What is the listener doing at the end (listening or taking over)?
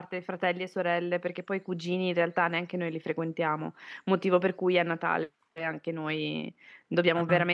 listening